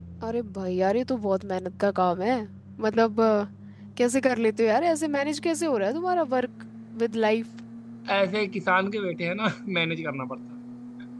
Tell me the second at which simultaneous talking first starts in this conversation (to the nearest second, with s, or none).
none